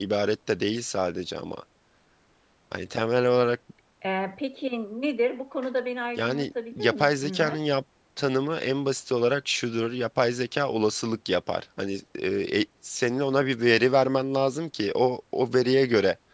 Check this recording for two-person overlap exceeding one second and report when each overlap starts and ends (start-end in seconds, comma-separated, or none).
6.2-7.6